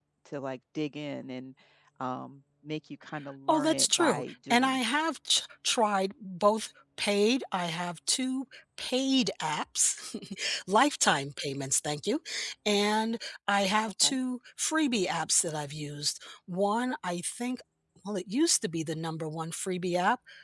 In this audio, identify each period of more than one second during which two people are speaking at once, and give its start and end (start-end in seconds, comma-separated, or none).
3.5-4.8